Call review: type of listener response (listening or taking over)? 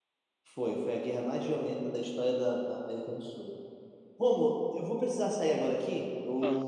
listening